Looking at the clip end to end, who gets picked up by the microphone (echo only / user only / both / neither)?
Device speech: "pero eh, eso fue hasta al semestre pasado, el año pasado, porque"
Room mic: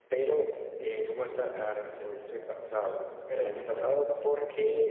both